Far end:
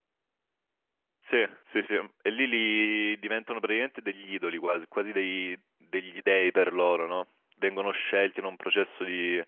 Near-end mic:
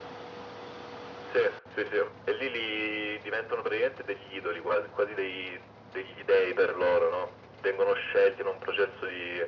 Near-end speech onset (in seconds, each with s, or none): none